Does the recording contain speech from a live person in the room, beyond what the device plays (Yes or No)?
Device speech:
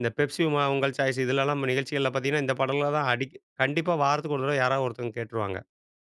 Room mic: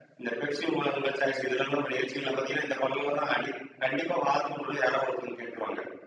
No